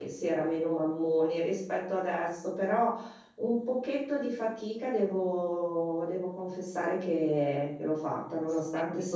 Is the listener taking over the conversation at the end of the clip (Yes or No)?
No